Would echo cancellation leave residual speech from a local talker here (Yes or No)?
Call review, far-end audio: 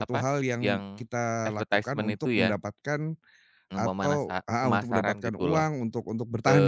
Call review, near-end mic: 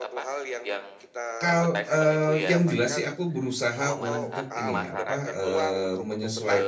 Yes